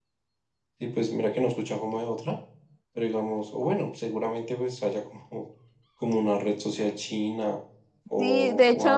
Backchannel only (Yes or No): No